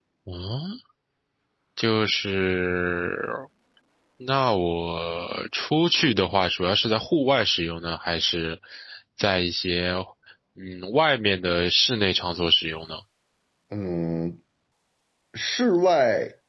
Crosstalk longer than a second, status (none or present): none